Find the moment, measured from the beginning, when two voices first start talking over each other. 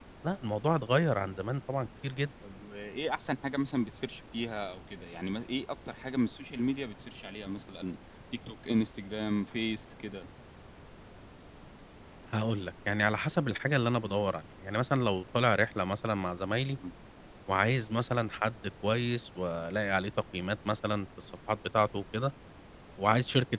none

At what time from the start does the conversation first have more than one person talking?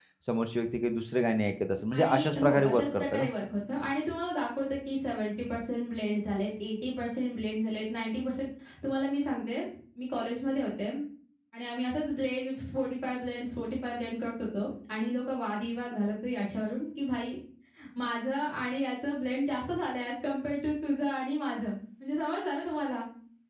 2 s

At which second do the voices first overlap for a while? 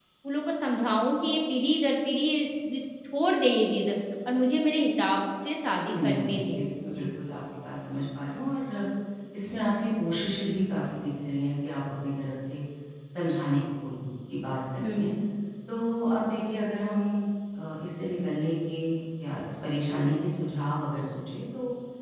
6 s

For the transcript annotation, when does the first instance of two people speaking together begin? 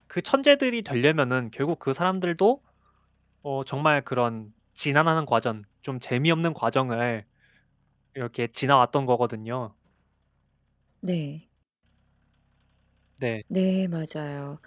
none

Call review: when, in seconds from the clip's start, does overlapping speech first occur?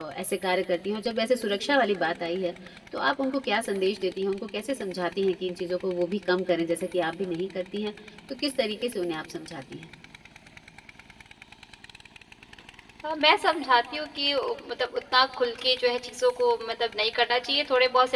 none

